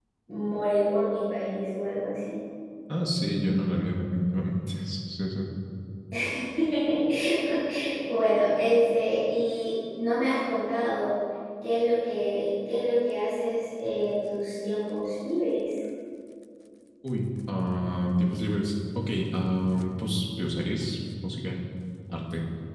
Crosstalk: none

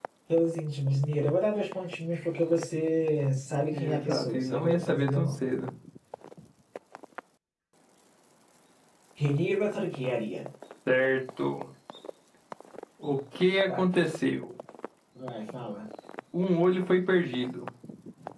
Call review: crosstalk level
present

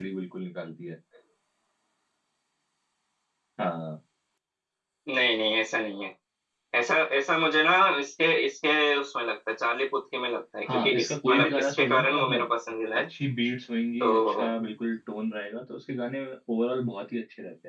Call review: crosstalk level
present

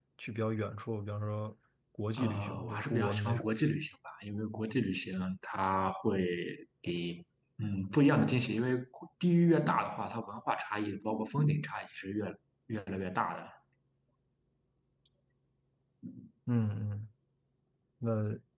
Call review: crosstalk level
present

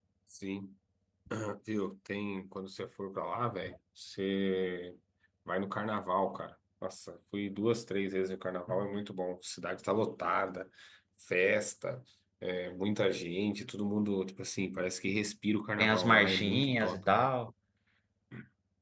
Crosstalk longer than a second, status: present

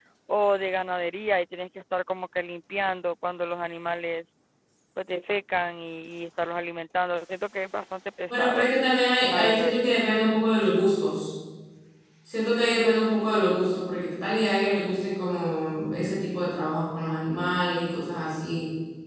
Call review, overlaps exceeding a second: none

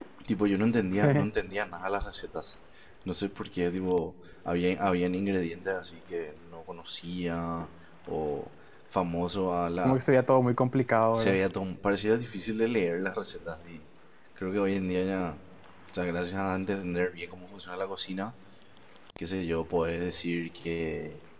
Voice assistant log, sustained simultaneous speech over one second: none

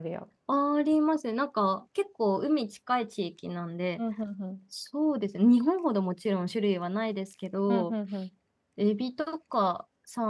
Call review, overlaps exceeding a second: none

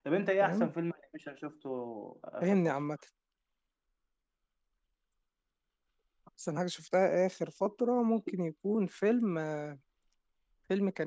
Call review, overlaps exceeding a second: none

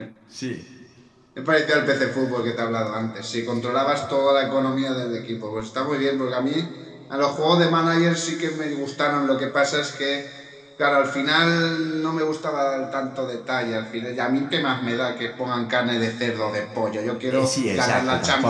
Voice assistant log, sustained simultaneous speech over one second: present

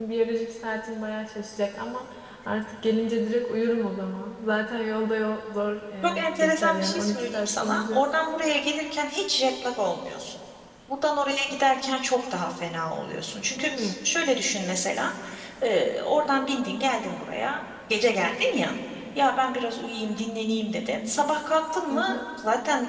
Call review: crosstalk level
present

